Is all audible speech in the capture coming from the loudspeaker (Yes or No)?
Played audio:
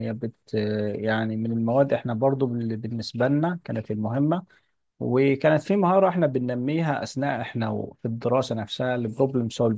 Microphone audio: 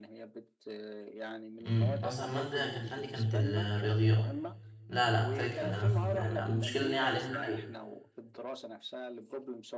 No